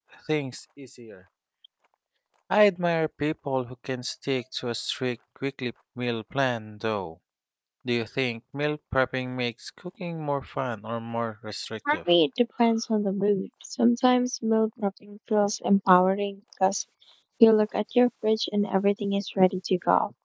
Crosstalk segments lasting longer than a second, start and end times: none

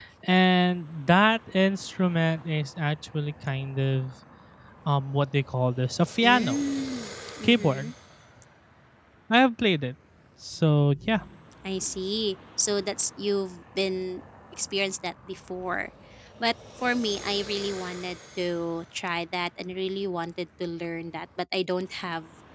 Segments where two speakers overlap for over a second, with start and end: none

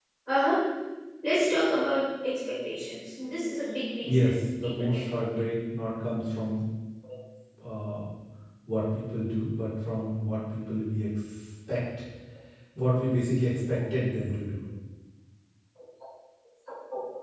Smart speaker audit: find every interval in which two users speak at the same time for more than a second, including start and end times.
4.0-5.3

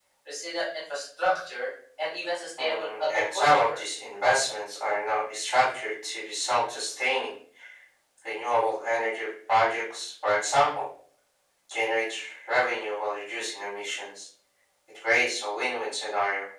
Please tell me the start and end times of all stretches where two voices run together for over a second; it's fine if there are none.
2.6-3.8

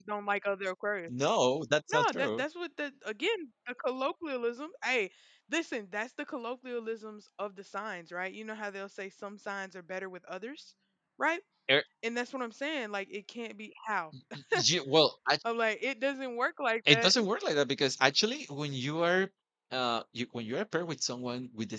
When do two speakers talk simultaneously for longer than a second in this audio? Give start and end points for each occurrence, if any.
none

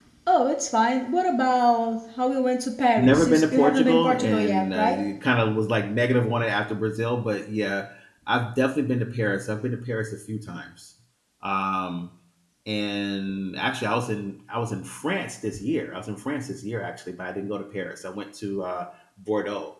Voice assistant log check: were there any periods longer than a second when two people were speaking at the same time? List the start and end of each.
3.0-5.0

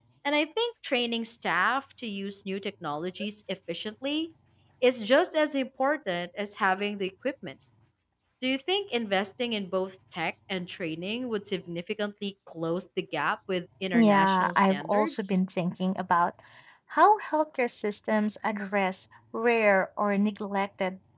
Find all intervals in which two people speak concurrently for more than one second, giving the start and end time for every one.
13.9-15.4

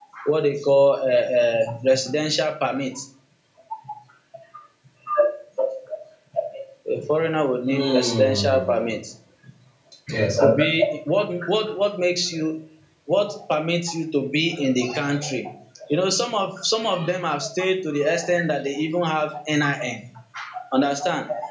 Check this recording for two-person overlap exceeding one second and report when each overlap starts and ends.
7.7-8.9

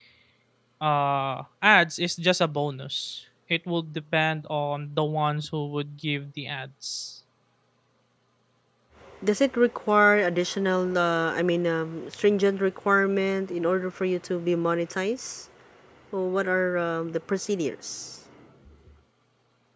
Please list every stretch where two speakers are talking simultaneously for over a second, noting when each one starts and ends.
none

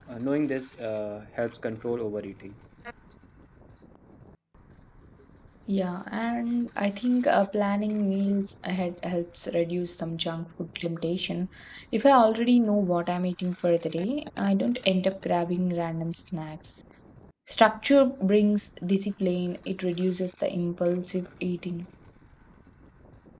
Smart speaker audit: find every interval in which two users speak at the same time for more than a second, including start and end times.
none

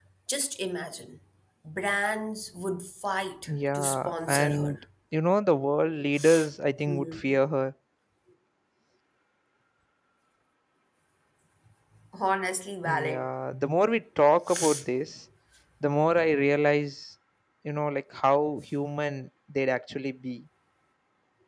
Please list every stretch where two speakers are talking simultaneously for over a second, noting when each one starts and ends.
3.5-4.8

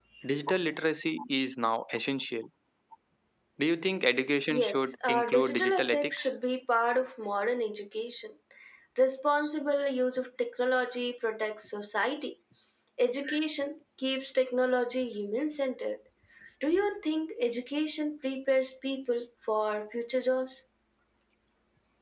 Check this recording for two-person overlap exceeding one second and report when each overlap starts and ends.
4.5-6.2

